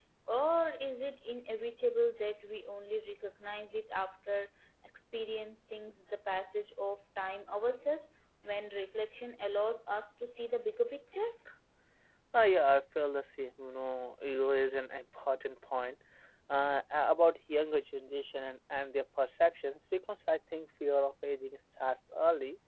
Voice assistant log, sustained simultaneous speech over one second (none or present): none